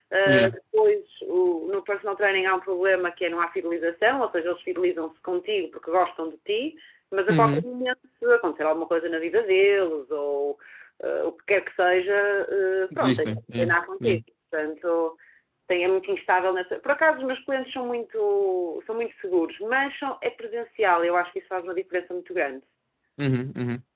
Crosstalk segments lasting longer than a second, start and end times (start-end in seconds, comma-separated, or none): 13.0-14.2